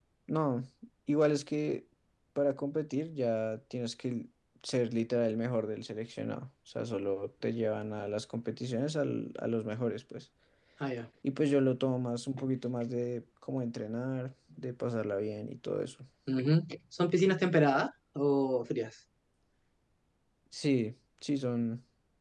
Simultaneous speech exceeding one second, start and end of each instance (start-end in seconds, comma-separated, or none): none